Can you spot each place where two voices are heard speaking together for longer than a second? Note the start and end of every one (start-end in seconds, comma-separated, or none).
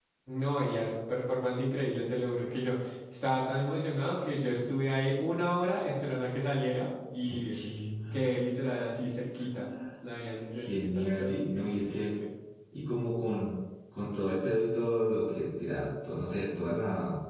10.5-12.2